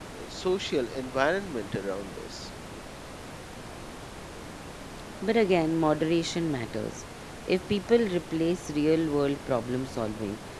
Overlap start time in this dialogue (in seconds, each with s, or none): none